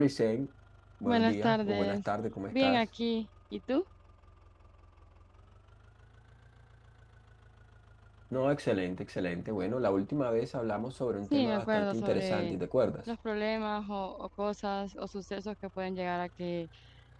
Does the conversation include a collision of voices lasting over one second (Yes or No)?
Yes